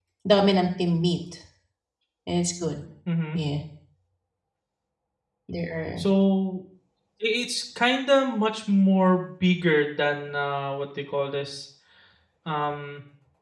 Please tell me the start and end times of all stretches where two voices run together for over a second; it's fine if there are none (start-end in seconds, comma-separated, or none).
none